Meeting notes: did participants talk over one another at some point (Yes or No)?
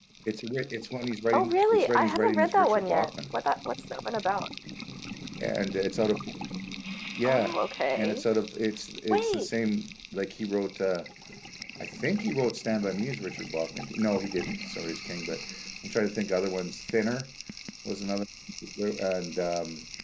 Yes